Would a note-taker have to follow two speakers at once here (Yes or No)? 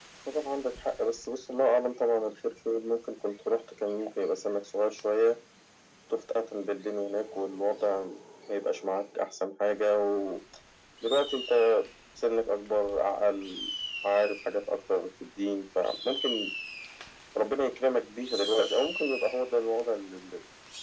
No